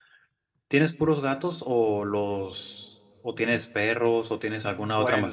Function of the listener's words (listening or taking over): listening